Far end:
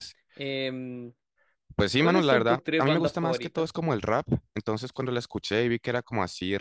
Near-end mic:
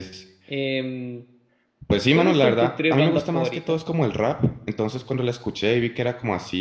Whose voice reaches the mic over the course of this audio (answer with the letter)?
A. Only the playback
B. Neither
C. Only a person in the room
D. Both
A